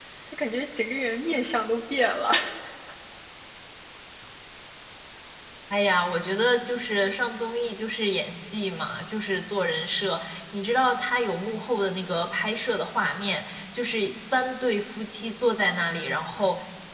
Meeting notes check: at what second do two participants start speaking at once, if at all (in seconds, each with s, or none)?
none